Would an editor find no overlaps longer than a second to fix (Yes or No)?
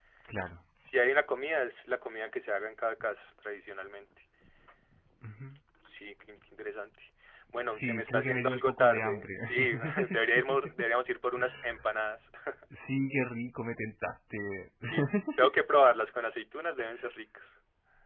No